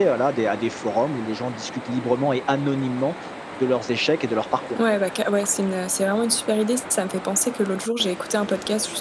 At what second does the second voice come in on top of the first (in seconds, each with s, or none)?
none